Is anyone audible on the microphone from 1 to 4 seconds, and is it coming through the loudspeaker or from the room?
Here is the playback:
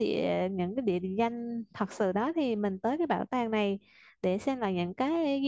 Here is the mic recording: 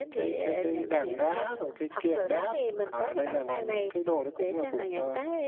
both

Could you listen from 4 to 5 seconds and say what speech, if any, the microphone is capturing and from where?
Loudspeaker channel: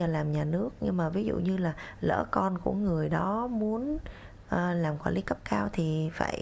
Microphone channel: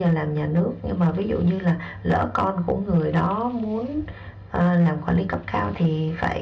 echo only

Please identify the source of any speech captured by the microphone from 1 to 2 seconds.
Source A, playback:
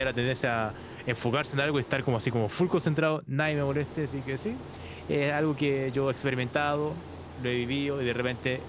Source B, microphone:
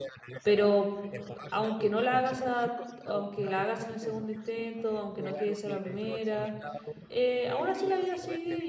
both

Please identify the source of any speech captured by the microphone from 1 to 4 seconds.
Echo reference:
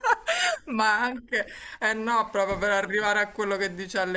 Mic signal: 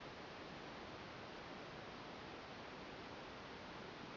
neither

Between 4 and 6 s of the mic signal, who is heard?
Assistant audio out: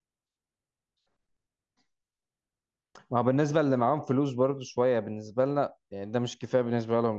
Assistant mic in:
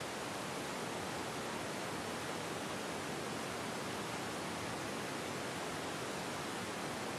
neither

